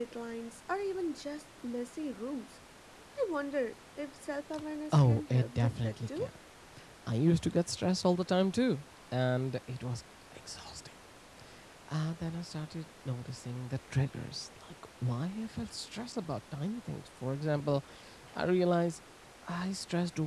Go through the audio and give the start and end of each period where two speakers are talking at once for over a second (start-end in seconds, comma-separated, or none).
4.9-6.3